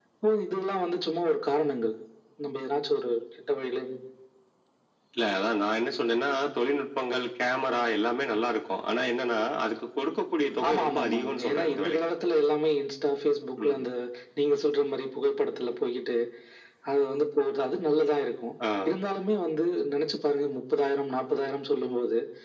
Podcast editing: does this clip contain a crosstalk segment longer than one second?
Yes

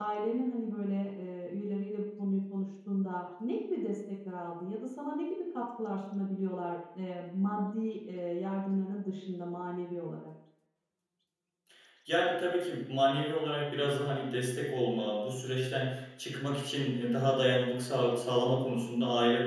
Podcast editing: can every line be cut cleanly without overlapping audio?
Yes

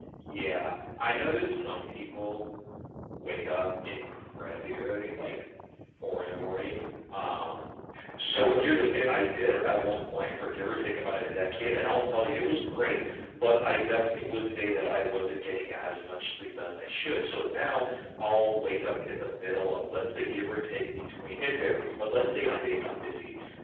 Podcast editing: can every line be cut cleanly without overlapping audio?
No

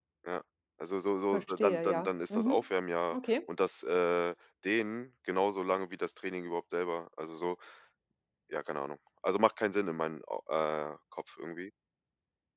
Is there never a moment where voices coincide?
No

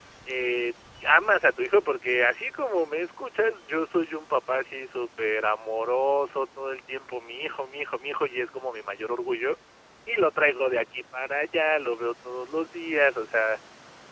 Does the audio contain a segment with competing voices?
No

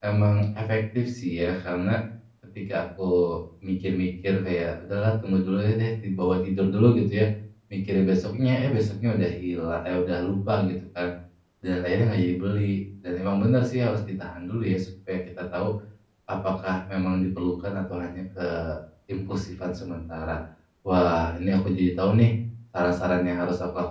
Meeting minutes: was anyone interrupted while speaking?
No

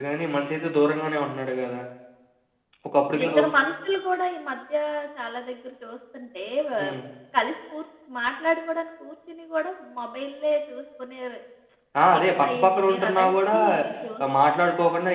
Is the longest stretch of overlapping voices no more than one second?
No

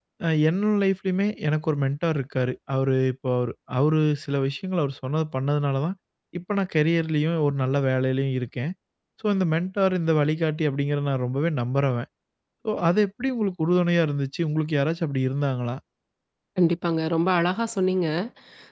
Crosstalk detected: No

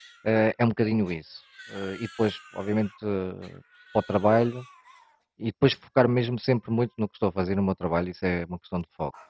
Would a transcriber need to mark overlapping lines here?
No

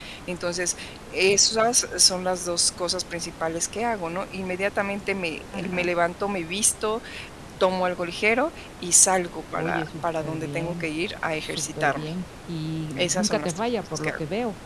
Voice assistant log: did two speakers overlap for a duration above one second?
Yes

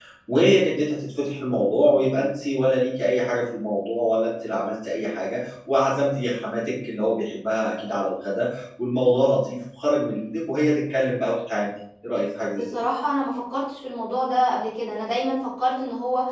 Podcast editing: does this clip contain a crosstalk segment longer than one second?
No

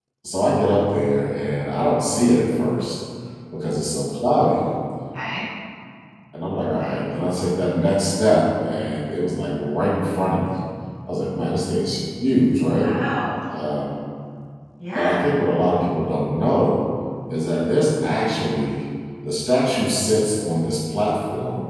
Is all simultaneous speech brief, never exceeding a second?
Yes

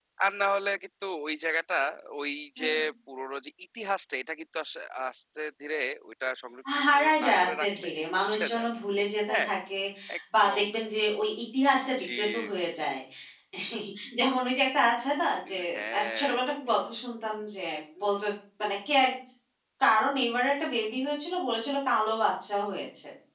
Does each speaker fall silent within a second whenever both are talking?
No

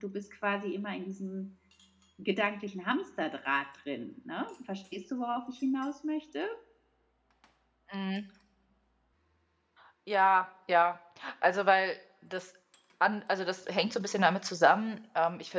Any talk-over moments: No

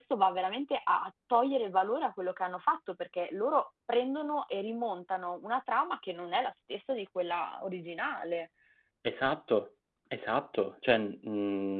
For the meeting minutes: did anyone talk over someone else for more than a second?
No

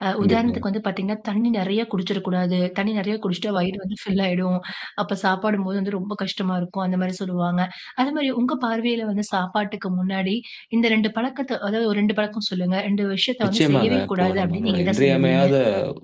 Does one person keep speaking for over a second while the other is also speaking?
Yes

